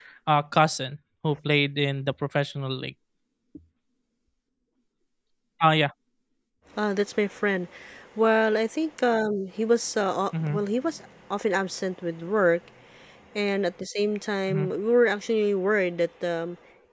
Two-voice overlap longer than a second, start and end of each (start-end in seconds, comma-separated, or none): none